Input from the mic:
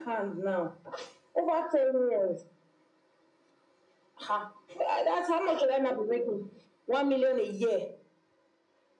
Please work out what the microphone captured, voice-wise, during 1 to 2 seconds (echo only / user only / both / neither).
echo only